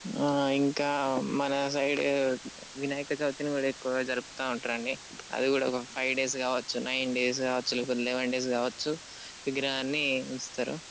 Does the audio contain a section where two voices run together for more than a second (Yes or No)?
No